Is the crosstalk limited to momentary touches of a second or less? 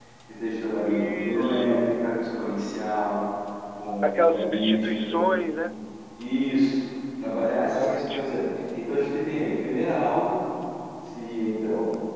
No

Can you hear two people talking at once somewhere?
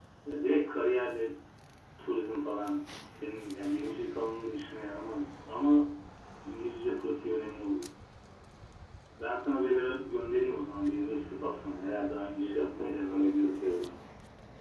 Yes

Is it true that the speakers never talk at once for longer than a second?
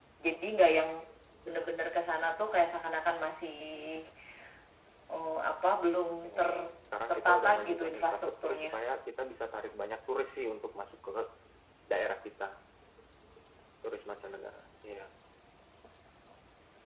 No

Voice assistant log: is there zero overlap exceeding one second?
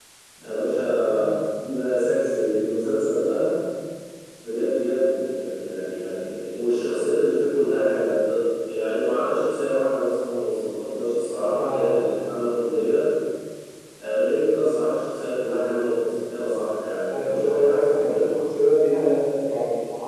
No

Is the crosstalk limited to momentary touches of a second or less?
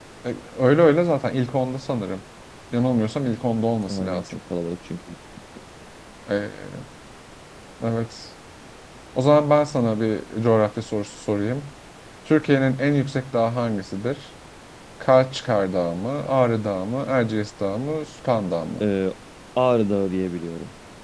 Yes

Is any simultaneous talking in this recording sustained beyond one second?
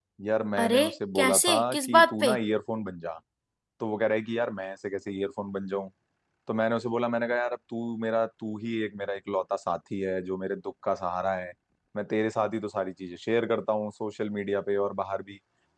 Yes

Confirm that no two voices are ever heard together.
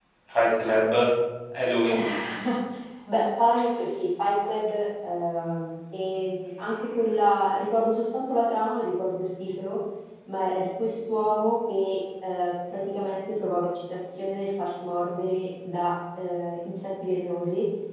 Yes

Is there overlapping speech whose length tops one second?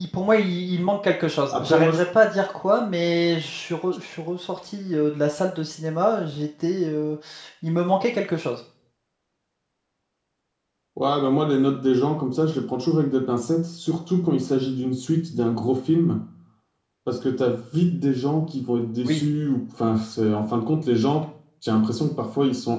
No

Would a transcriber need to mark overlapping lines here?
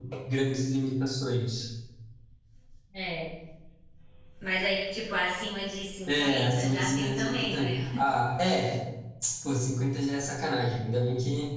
Yes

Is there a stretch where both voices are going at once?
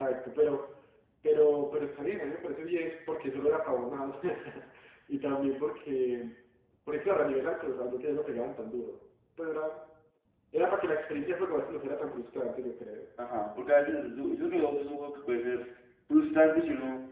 No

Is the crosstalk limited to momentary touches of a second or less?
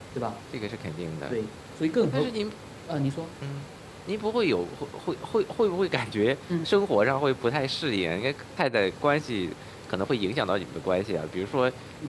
Yes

